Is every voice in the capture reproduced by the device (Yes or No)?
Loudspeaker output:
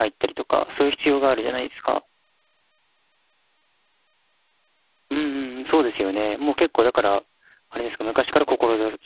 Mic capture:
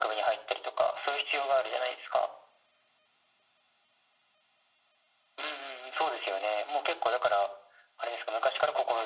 Yes